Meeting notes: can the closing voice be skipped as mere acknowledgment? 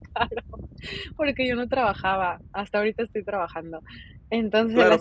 No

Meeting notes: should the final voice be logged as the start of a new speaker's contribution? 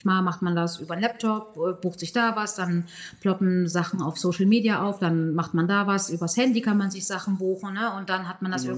No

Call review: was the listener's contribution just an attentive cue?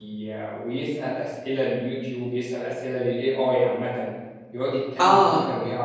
Yes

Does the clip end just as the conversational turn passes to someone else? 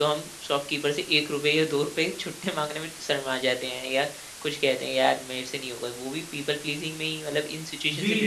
Yes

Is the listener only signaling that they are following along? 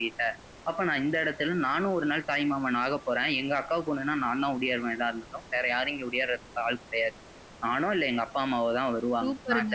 No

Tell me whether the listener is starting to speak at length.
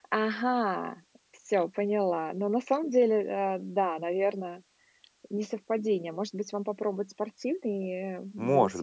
Yes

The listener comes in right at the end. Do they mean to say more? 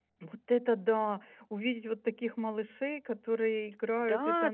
Yes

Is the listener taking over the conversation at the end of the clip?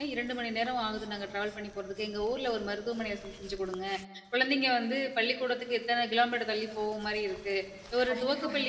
No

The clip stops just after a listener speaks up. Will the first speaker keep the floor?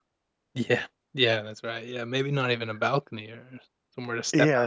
No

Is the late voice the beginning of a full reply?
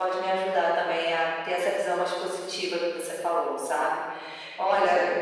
No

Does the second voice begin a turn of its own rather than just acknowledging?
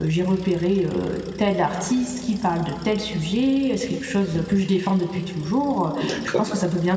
No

